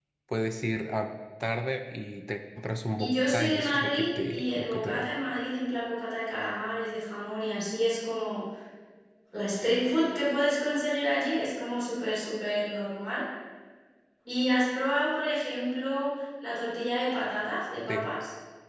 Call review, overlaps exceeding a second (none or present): present